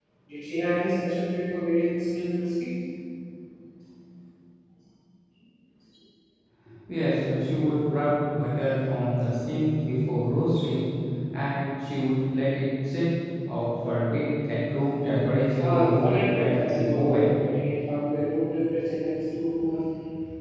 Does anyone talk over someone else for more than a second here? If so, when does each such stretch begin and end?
15.6-17.3

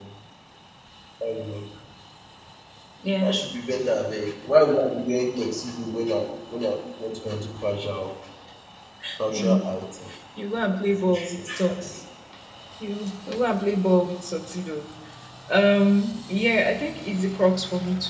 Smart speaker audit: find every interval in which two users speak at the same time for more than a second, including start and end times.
10.7-12.0

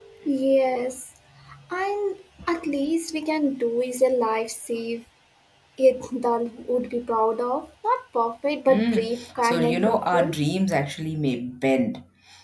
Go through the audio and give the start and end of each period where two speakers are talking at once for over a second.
8.7-10.4

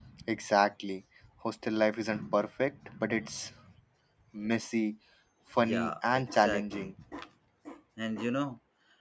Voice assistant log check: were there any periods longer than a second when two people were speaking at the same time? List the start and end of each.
5.6-6.9

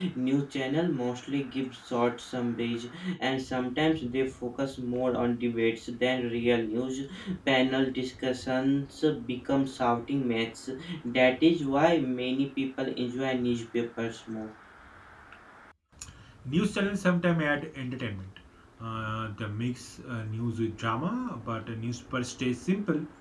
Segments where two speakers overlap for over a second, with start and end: none

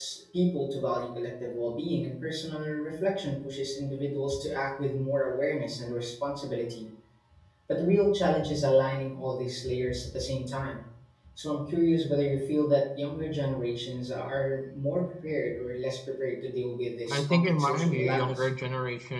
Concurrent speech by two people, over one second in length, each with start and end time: 17.1-18.5

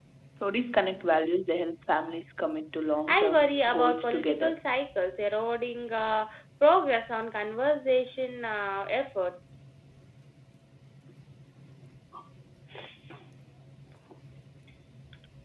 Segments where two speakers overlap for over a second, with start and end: 3.1-4.5

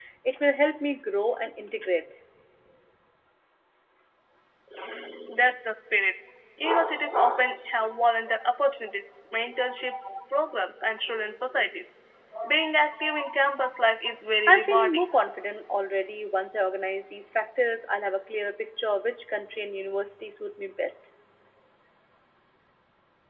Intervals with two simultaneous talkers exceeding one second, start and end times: none

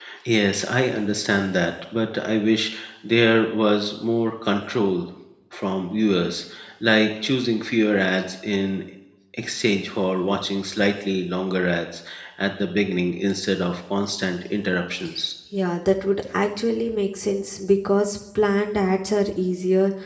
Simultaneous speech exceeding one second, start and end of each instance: none

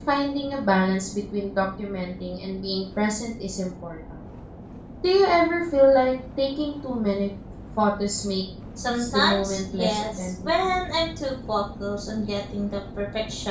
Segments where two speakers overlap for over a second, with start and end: 9.0-10.5

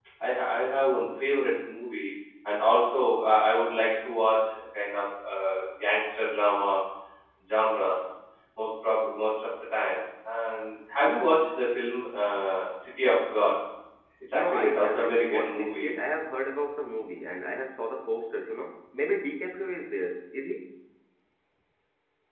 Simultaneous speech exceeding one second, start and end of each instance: 14.3-15.9

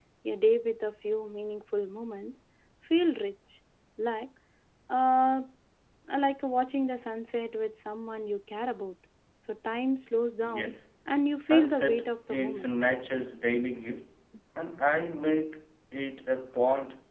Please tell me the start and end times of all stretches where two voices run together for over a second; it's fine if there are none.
11.4-12.7

